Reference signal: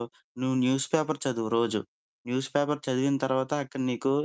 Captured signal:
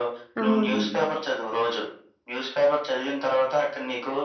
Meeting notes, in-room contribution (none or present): present